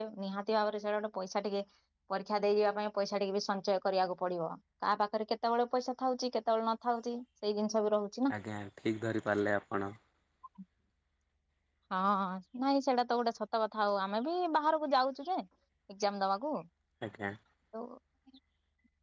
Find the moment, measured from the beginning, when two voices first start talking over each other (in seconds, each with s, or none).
none